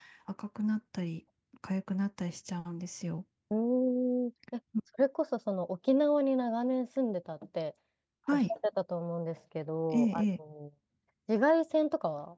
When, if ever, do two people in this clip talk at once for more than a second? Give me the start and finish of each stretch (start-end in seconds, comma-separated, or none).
none